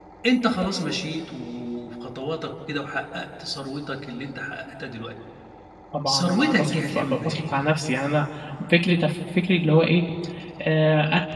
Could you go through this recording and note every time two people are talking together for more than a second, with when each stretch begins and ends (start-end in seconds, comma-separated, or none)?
6.1-7.7